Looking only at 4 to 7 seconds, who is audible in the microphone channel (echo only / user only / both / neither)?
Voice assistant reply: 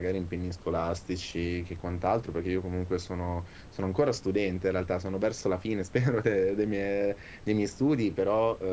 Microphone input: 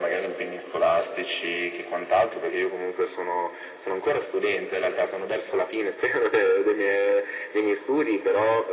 echo only